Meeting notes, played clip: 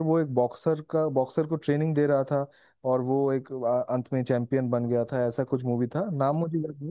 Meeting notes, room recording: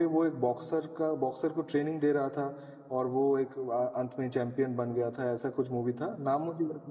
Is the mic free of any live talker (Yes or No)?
Yes